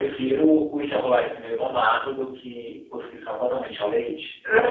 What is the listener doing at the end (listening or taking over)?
taking over